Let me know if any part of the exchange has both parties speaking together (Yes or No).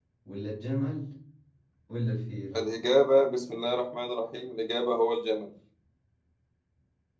No